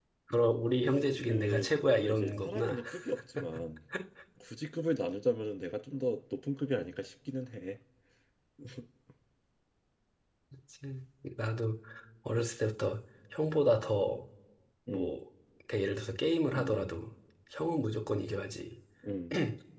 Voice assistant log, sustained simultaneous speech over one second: present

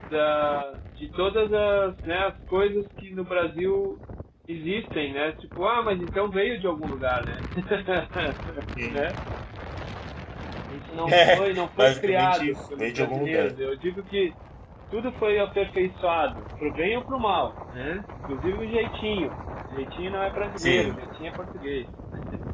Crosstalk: present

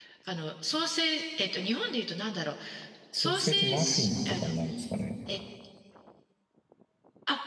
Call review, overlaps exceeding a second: present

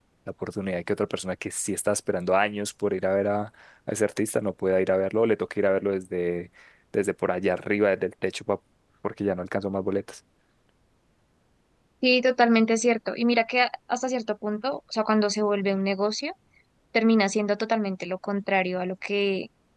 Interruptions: none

